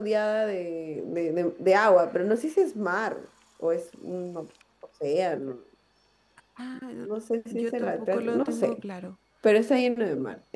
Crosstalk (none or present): present